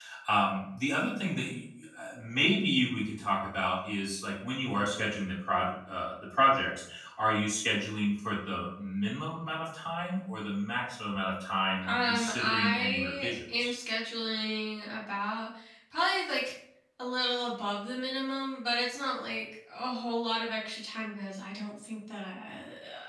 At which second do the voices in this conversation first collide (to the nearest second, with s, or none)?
12 s